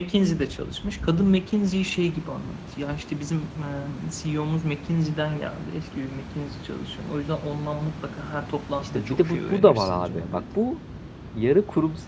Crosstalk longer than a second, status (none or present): present